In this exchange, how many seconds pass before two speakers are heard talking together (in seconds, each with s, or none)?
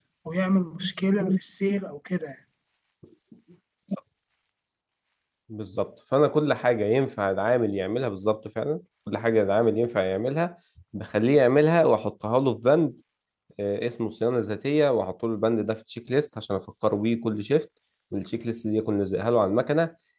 none